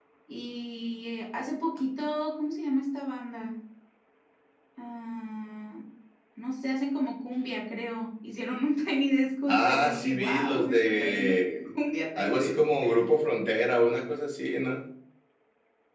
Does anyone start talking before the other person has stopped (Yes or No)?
Yes